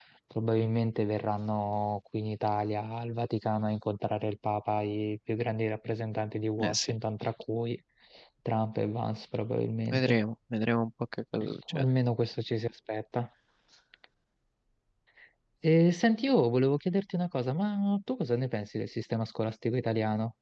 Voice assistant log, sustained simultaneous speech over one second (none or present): none